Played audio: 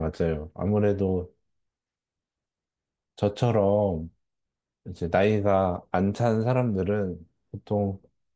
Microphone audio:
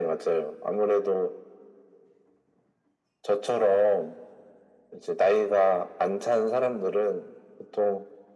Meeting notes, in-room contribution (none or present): none